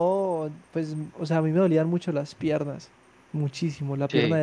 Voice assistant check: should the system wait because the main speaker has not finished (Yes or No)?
Yes